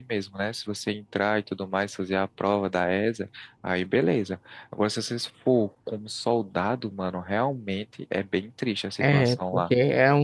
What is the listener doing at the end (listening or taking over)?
taking over